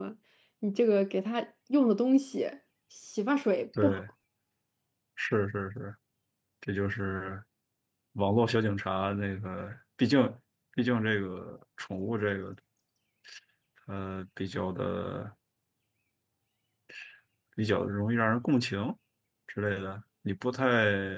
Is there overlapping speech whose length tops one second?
No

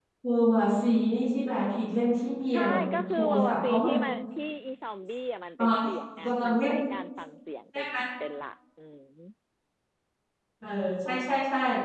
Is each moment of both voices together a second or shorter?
No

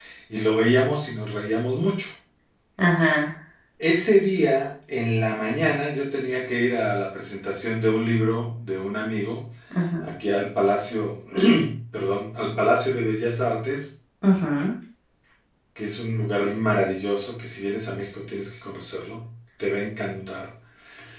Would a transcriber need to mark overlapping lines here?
No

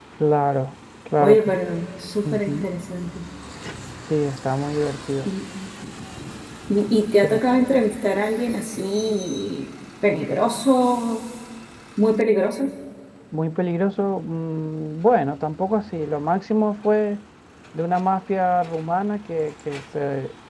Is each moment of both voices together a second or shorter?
Yes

